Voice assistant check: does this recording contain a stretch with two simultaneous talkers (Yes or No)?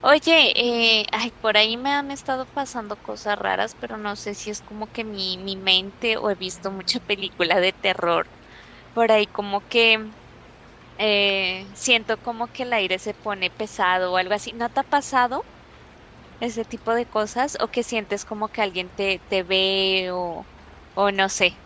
No